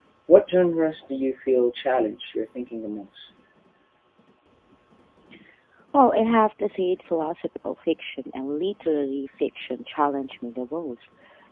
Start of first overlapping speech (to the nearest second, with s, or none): none